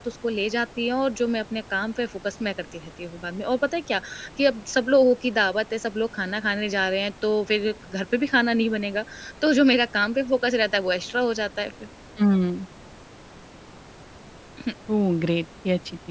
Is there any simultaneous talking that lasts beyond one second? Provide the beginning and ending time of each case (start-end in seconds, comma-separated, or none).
none